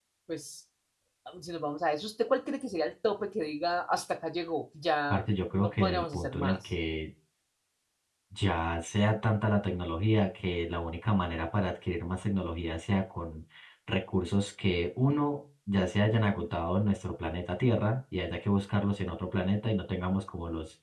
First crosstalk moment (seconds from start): 5 s

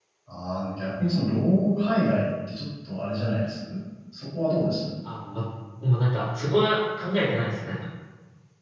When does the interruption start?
none

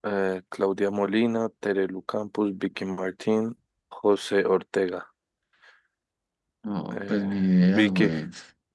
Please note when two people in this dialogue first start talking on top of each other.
7 s

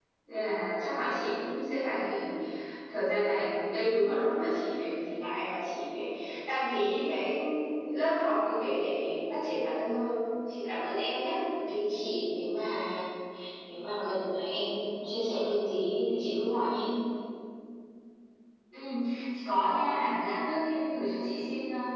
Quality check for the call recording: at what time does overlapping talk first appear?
none

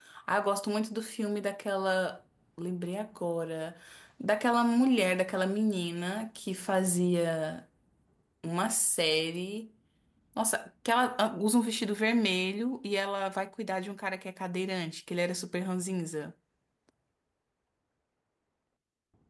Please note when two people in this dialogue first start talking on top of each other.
none

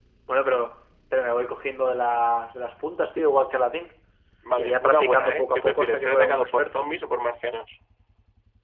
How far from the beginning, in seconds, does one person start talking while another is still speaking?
5 s

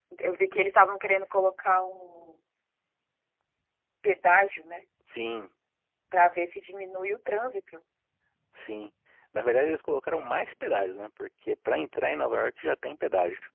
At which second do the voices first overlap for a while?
none

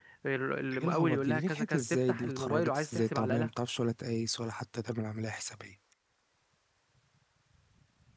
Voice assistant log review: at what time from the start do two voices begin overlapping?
1 s

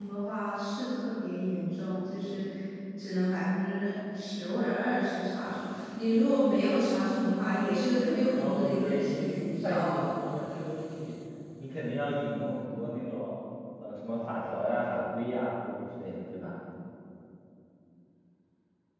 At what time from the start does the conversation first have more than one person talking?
8 s

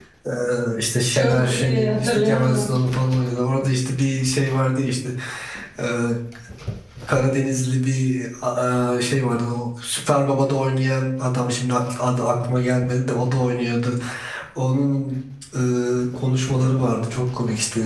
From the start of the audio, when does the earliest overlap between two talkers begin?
1 s

